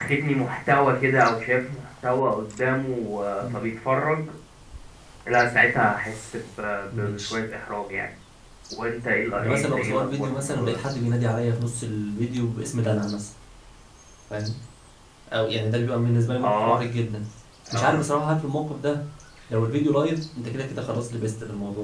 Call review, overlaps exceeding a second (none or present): present